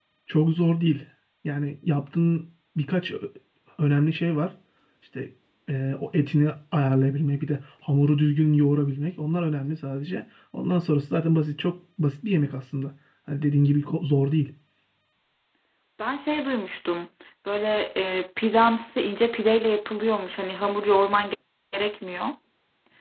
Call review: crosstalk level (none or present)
none